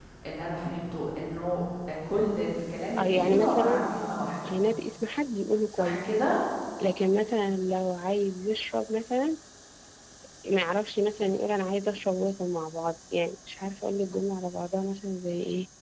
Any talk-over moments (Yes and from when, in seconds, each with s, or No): Yes, from 3.0 s